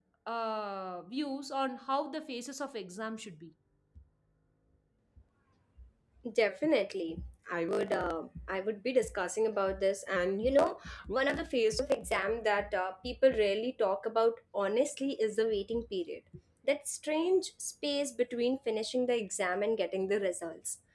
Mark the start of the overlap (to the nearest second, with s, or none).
none